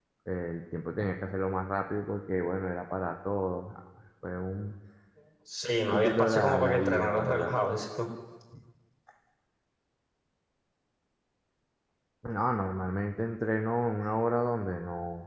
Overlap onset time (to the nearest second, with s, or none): 6 s